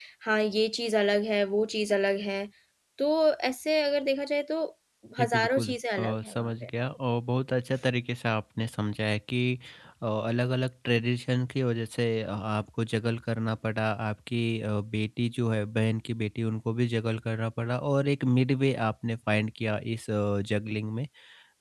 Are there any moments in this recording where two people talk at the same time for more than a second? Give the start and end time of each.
5.2-6.7

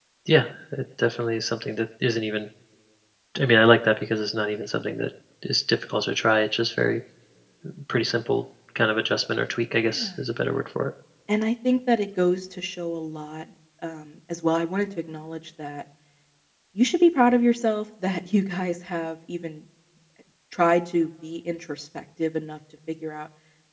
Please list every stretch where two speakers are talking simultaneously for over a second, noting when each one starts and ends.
none

